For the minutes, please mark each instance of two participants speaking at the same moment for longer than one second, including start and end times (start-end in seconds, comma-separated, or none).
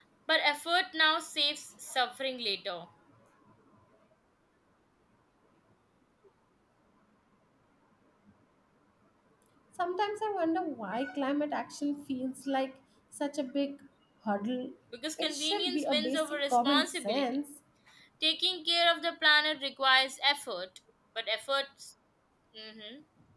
15.2-17.2